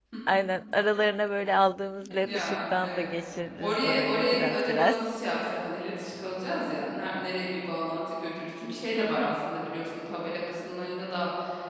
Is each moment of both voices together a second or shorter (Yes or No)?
No